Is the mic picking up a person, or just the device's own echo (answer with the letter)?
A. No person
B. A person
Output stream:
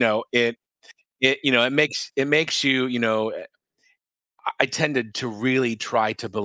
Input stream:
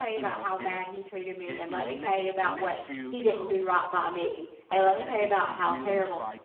B